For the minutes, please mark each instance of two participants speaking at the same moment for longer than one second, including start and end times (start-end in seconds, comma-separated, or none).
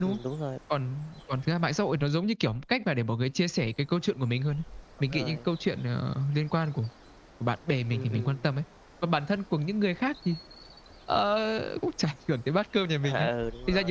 none